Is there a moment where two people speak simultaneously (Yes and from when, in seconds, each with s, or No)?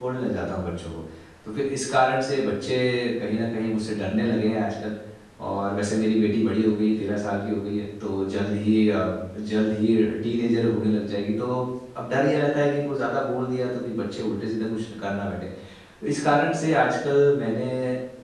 No